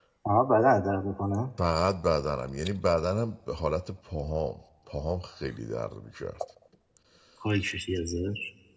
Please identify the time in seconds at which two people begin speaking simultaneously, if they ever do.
none

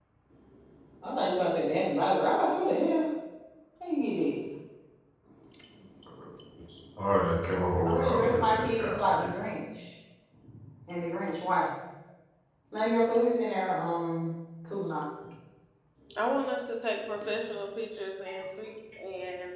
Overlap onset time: 7.8 s

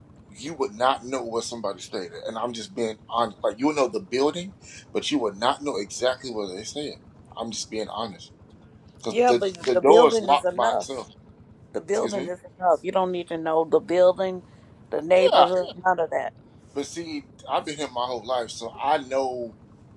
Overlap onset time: 9.1 s

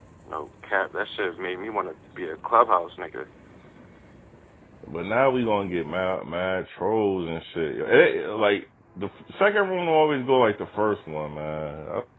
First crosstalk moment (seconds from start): none

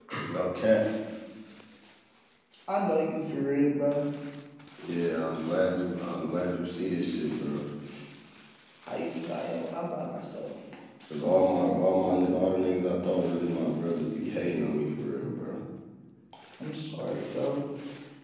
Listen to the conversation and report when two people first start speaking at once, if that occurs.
none

